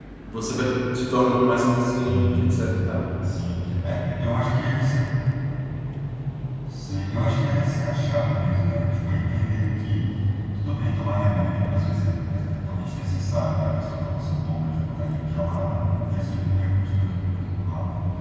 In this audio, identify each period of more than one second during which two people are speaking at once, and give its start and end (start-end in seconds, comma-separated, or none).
none